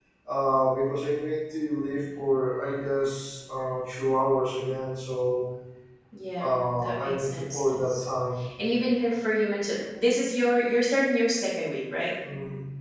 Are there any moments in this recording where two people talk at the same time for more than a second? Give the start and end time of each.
6.4-8.0

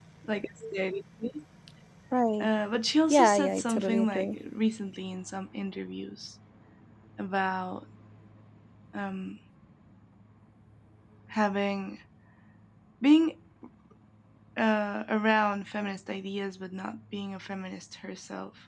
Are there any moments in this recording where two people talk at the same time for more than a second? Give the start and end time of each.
3.1-4.4

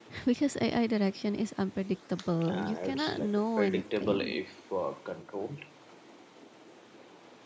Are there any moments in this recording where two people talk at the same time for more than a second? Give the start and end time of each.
2.5-4.4

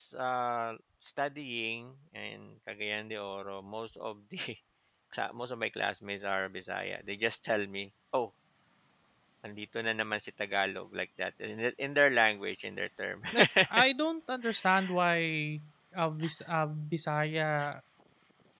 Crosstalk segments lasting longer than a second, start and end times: none

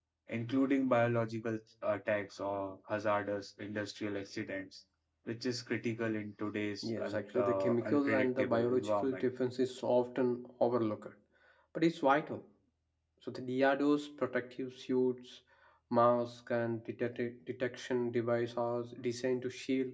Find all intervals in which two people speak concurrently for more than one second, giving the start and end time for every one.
6.8-9.2

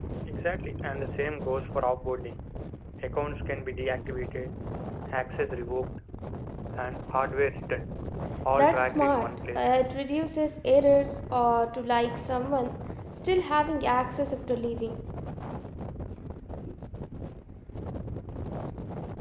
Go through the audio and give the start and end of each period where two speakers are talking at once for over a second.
8.5-9.7

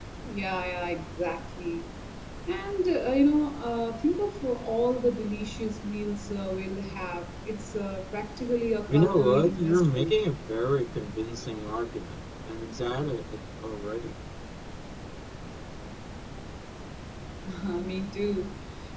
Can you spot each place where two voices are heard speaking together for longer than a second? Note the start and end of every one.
8.9-10.2

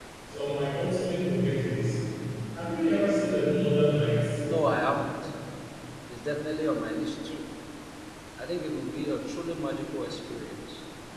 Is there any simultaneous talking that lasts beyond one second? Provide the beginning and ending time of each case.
none

